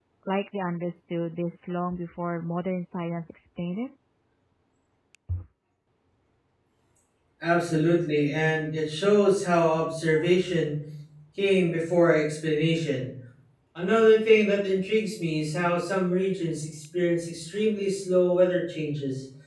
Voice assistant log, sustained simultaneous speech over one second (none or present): none